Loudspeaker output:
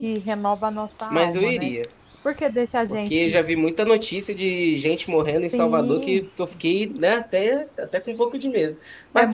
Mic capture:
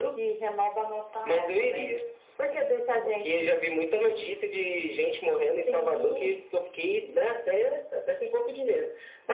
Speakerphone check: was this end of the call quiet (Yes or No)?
Yes